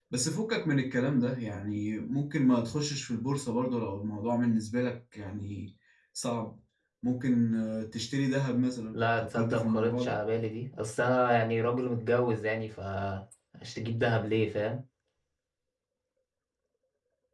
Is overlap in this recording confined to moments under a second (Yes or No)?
No